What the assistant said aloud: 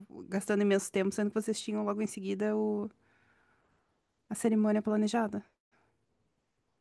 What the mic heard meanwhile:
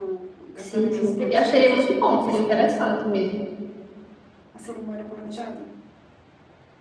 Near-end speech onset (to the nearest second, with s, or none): 1 s